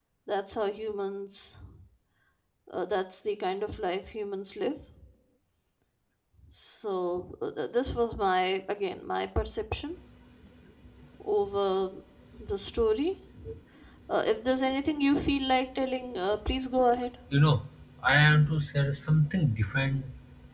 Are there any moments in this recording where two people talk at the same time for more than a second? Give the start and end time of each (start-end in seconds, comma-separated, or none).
none